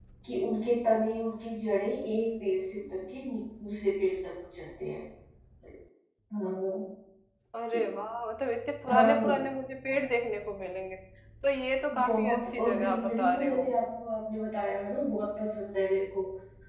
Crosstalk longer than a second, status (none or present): present